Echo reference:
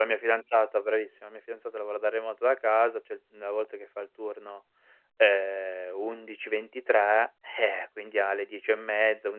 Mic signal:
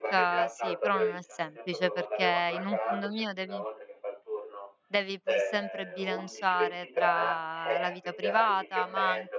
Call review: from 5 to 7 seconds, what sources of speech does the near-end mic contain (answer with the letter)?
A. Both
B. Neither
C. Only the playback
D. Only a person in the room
A